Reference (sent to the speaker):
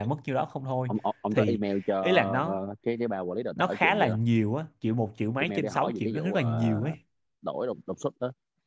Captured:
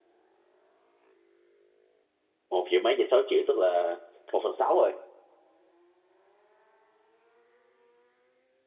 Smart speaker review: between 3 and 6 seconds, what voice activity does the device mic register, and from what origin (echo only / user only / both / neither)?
user only